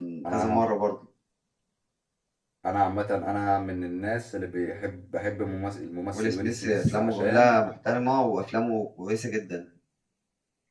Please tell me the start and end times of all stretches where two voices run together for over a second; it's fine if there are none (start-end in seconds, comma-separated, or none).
6.1-7.6